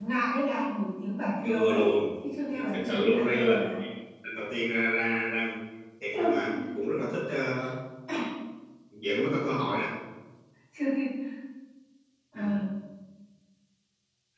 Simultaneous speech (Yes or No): Yes